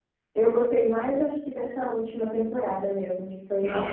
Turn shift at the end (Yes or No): Yes